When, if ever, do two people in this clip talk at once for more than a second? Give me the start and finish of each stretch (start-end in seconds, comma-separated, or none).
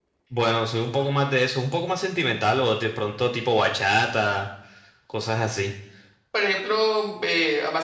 none